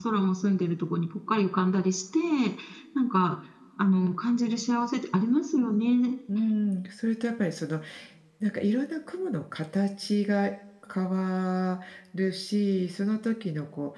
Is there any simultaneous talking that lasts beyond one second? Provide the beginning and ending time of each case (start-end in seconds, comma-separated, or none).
none